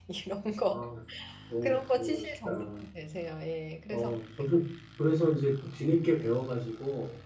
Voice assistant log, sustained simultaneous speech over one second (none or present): present